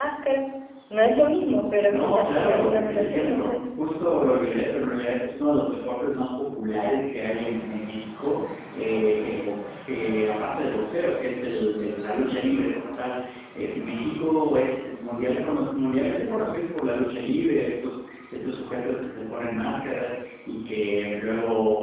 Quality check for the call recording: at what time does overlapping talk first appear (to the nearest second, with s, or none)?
2 s